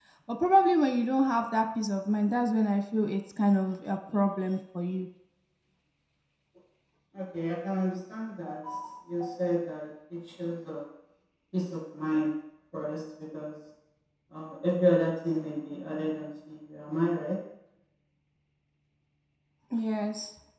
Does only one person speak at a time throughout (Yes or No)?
Yes